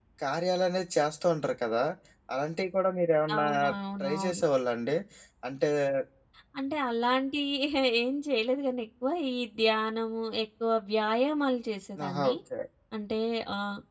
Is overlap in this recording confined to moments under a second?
Yes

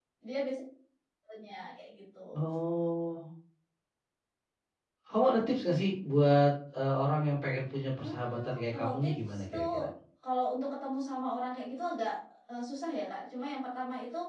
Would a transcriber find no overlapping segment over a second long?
No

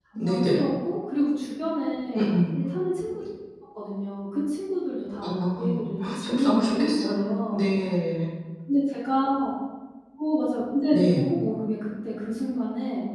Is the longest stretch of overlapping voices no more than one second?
No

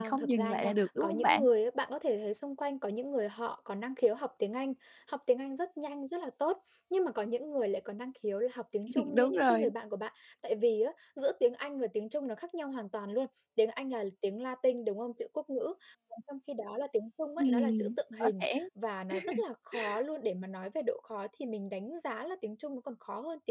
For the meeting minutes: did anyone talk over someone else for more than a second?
Yes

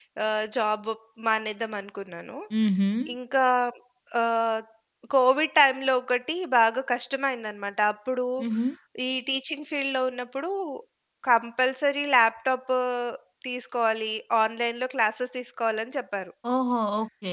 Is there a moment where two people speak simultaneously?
No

